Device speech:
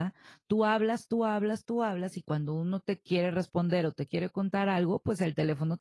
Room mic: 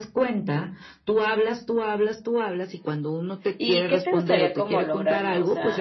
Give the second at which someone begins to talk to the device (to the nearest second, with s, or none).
4 s